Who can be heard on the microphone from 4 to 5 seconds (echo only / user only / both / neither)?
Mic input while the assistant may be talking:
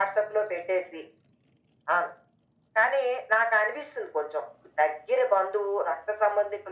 echo only